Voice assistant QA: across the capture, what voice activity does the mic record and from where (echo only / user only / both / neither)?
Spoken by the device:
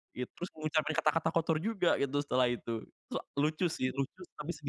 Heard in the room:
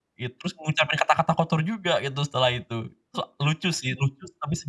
echo only